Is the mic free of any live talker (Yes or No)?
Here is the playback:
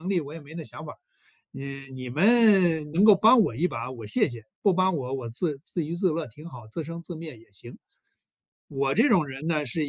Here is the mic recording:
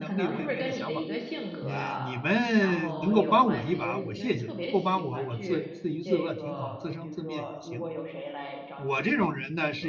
No